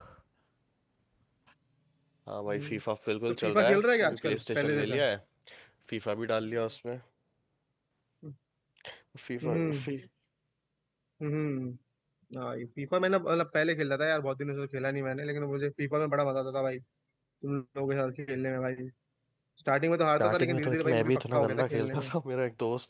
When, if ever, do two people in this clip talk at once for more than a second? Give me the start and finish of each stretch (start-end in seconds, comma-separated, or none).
3.3-5.0, 20.2-22.1